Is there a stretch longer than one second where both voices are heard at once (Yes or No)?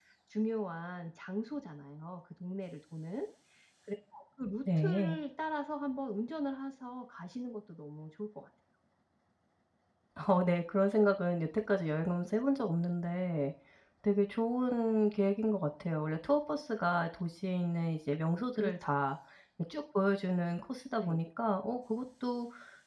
No